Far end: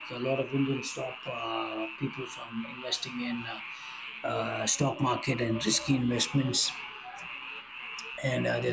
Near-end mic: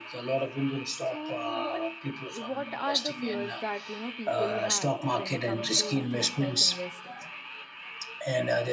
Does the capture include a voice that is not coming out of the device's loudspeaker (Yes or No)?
Yes